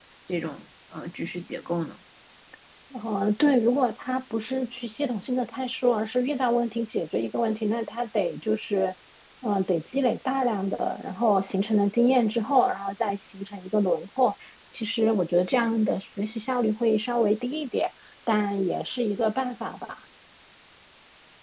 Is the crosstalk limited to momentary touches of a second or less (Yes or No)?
Yes